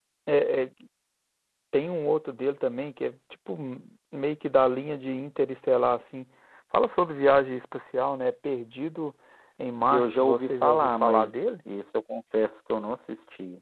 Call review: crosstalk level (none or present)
present